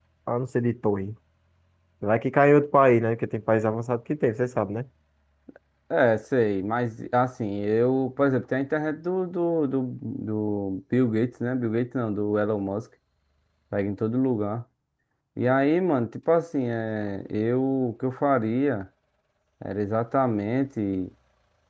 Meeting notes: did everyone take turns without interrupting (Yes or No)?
Yes